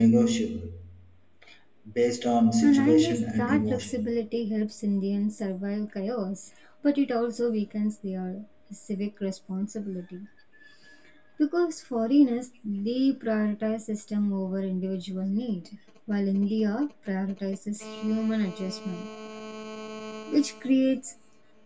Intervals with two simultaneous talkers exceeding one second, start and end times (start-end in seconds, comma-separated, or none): 2.6-4.1